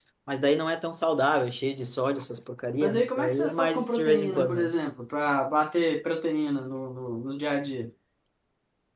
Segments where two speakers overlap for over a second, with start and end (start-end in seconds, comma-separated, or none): 2.8-4.7